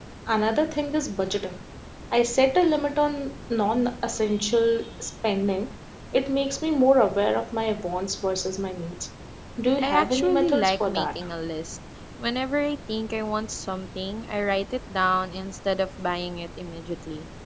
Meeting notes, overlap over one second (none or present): present